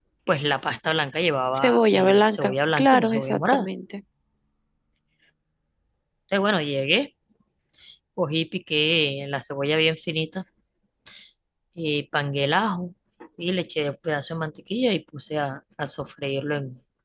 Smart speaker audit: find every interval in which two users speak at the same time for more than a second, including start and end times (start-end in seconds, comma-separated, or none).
1.6-3.7